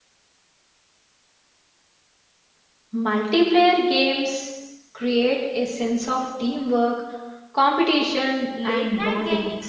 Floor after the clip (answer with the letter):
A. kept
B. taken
B